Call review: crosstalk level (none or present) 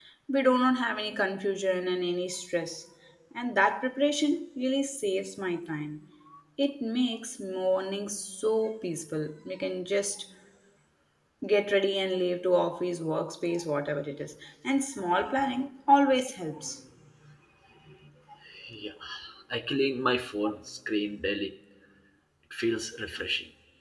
none